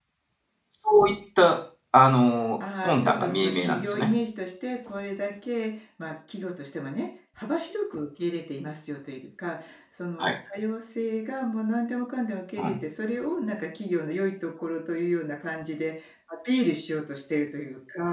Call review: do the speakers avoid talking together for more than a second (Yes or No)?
No